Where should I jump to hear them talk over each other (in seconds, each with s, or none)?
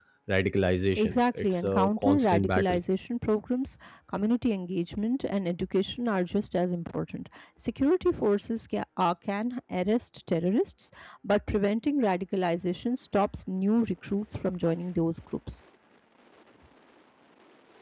1.0 s